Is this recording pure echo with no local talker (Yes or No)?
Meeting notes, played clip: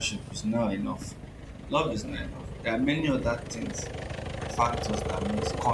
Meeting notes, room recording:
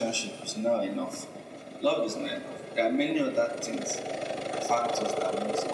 Yes